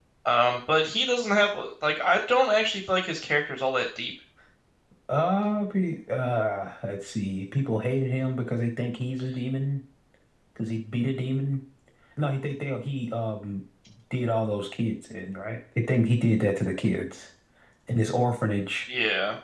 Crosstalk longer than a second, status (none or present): none